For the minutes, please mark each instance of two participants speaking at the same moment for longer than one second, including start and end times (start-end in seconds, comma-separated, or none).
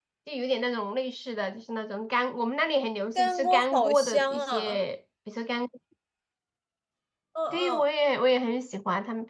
3.2-4.8